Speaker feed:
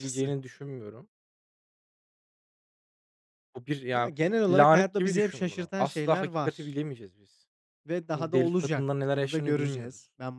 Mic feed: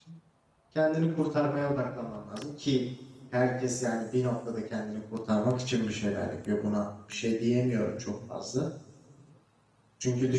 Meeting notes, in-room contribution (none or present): present